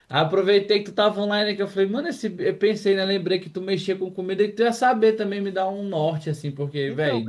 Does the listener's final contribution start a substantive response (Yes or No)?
Yes